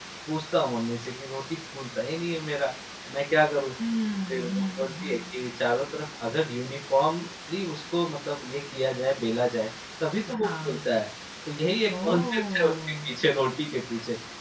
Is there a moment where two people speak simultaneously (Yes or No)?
Yes